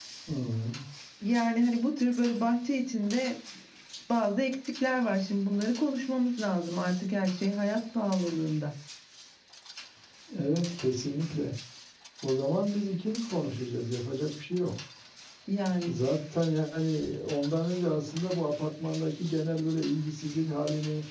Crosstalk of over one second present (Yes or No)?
No